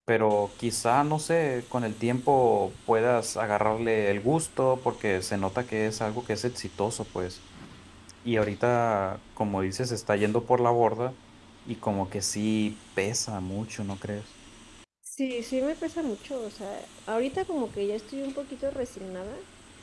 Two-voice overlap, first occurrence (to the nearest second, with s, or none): none